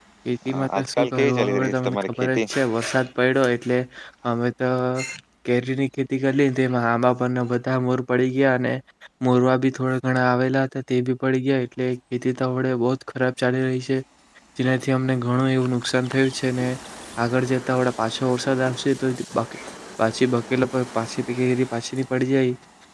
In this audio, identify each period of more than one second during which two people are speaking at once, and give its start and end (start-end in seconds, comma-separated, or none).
0.5-2.4